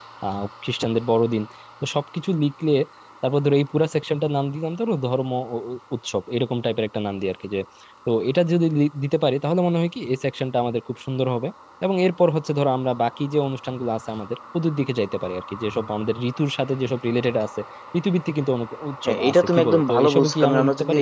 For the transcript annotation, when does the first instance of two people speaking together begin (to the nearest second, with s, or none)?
19 s